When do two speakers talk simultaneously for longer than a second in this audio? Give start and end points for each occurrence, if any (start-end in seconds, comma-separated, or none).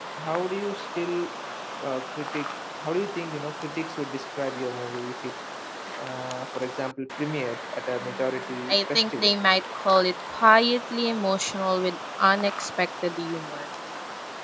8.0-9.3